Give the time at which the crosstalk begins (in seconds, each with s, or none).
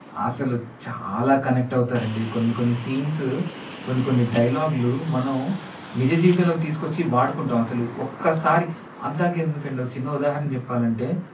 none